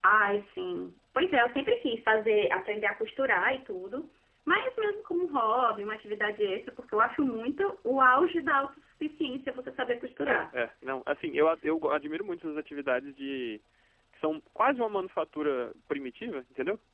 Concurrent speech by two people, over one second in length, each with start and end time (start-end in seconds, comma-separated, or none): none